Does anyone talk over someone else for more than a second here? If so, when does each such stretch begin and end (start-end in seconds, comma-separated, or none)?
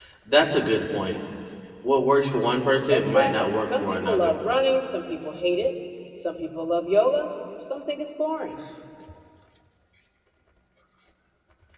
2.9-4.3